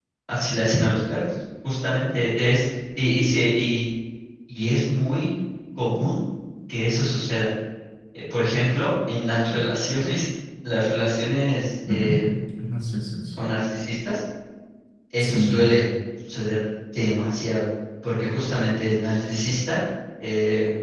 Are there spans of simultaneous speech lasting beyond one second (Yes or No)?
No